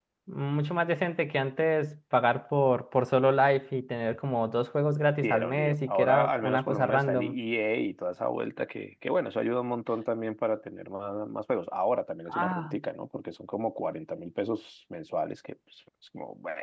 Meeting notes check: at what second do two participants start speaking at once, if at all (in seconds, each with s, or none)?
5.2 s